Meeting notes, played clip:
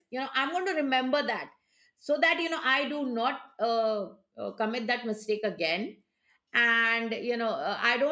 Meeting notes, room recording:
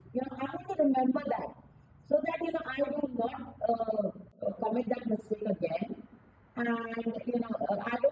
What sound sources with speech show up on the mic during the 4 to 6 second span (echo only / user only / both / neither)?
echo only